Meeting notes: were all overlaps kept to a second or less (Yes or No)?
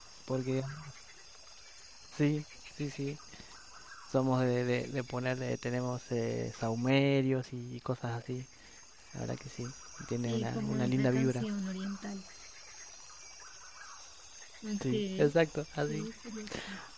No